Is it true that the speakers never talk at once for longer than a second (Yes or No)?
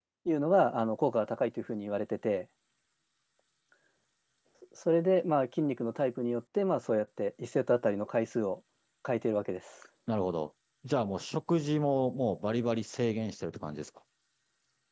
Yes